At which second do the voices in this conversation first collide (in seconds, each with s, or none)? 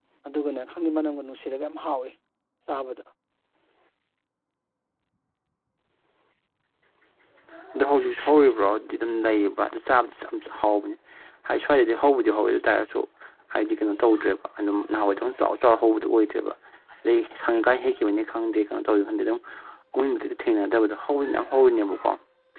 none